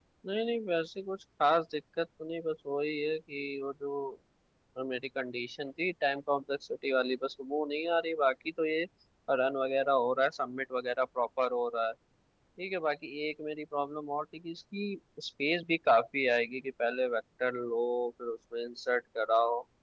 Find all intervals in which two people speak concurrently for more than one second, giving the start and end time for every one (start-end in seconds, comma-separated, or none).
none